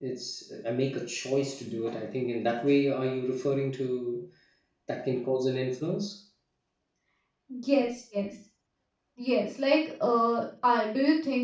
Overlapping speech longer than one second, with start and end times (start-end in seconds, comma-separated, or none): none